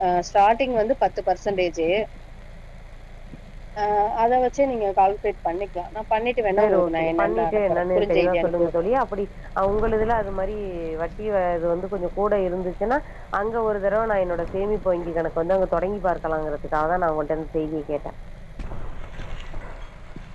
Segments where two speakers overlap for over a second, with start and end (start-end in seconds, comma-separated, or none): 6.6-8.7